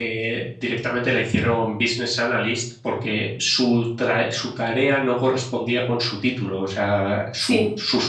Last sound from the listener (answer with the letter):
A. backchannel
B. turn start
A